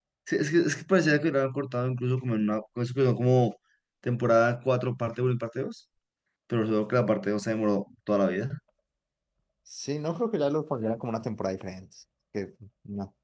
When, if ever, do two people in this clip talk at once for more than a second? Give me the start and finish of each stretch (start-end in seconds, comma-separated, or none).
none